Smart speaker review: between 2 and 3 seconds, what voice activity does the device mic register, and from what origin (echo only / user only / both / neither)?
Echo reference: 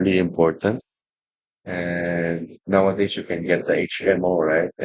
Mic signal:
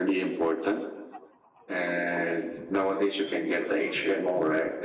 echo only